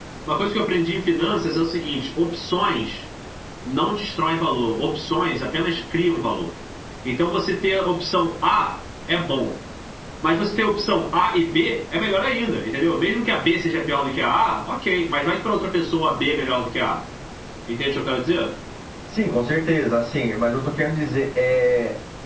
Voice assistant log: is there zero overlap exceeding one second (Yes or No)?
Yes